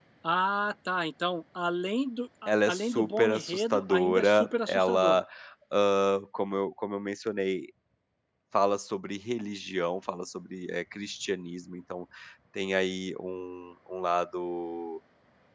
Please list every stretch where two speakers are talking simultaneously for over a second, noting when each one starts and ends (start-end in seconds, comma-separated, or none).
2.5-5.2